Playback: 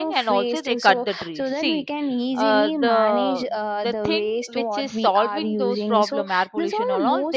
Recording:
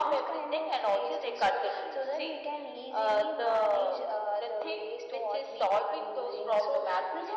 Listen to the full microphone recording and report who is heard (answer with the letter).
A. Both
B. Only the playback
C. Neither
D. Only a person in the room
B